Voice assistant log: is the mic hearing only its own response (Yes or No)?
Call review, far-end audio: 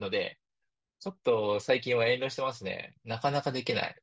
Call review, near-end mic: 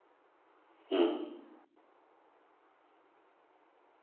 No